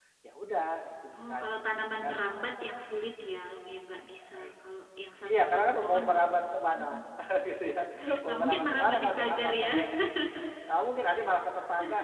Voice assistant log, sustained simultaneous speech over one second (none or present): present